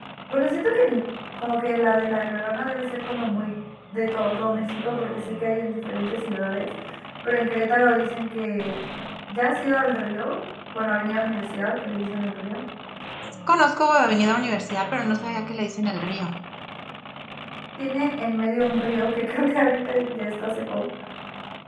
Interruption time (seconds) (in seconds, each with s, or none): none